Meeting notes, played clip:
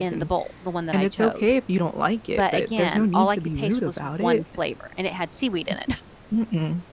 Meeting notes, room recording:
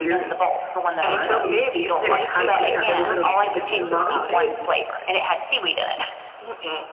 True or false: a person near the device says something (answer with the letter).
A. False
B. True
B